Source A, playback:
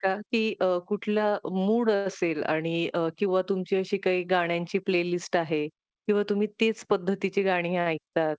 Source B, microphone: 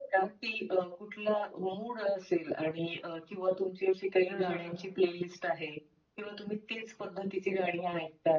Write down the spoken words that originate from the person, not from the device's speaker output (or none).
हां, हं.